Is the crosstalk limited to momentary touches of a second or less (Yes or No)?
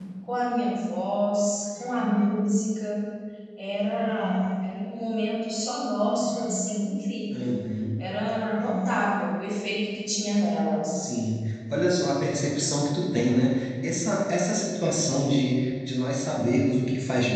Yes